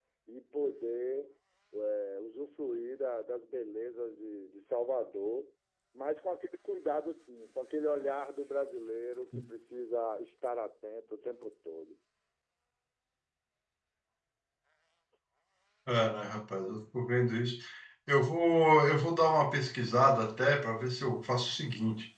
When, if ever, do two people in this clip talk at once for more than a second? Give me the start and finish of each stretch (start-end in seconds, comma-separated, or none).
none